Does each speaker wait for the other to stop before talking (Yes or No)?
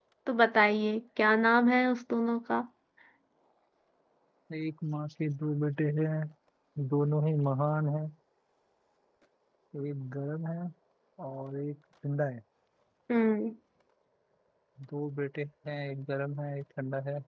Yes